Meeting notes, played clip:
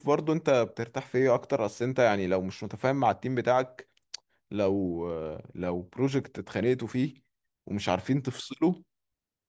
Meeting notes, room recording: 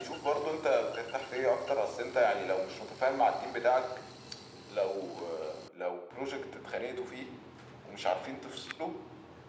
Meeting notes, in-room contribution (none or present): none